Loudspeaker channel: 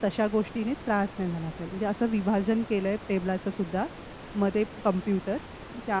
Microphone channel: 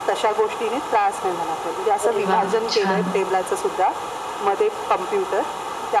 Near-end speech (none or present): present